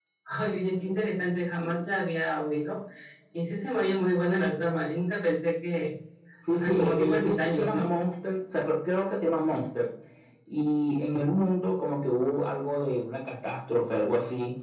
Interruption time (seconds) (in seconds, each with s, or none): 6.5 s